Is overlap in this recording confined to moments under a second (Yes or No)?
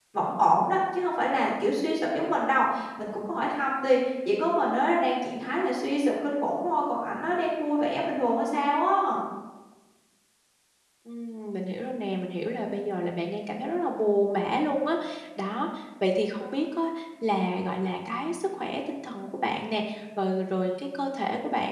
Yes